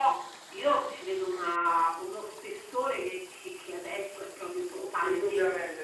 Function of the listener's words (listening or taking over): taking over